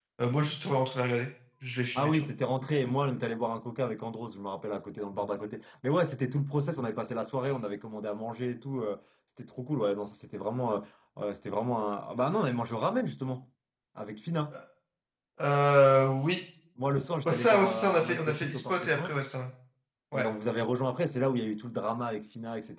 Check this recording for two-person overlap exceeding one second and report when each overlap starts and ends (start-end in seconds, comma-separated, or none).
17.3-19.2